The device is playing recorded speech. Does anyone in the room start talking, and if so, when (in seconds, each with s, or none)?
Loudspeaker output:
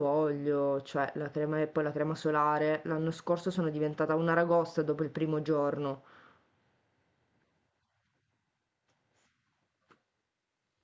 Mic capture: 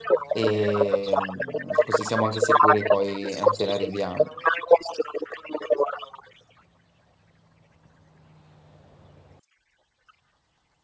0.3 s